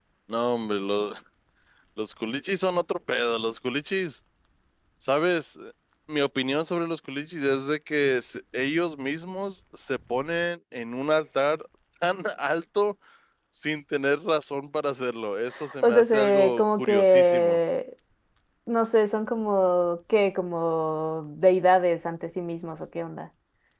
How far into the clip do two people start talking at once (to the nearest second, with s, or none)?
16 s